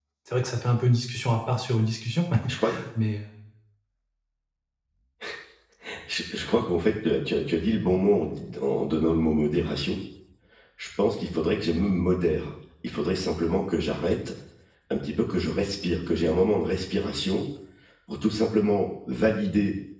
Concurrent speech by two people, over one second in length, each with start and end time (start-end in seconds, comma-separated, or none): none